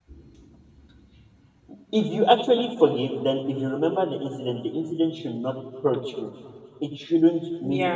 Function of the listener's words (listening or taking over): listening